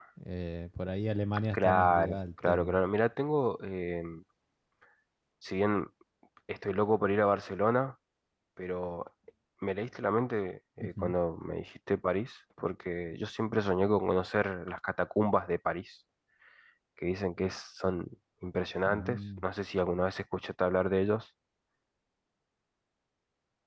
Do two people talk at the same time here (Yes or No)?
Yes